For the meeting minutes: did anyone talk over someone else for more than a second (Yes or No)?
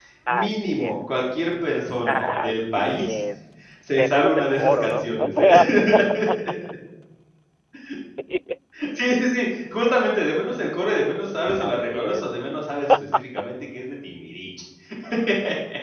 Yes